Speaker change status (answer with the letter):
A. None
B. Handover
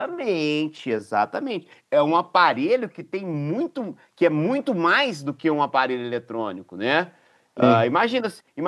A